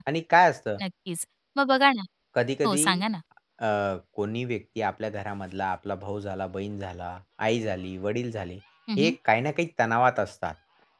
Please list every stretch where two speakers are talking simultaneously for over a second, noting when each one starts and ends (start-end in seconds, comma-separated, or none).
none